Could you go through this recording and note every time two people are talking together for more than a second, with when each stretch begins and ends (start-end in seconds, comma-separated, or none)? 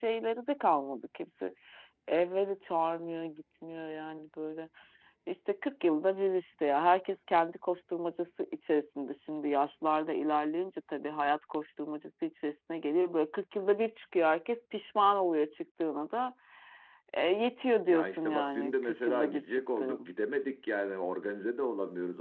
17.9-20.1